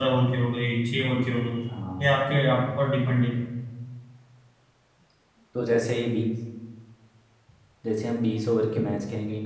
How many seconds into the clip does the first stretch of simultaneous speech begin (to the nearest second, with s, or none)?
none